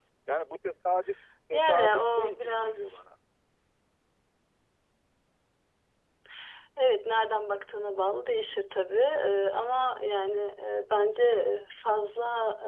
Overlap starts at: 1.5 s

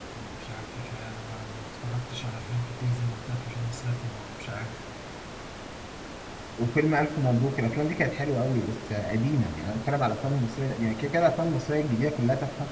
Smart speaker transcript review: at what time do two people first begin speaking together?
none

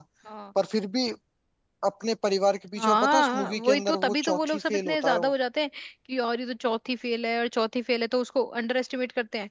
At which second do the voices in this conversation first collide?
2.8 s

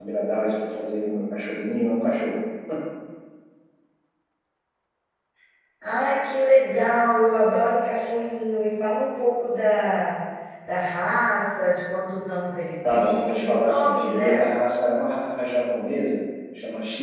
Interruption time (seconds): 12.8 s

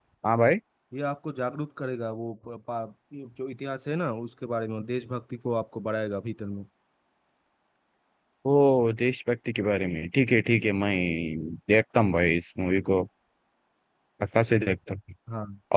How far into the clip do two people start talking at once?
none

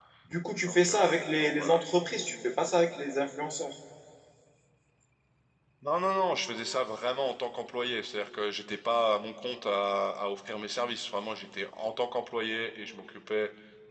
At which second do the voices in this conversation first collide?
0.6 s

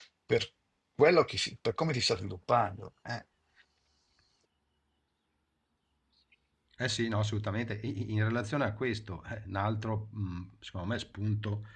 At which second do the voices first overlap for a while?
none

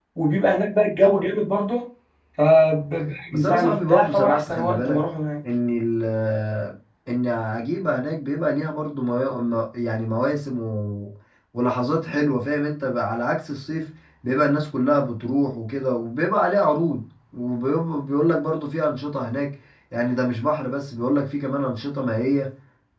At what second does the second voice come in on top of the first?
3.3 s

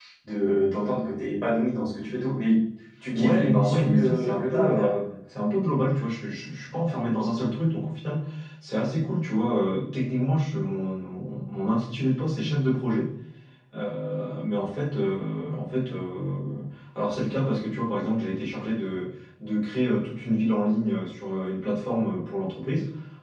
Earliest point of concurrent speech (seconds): 3.1 s

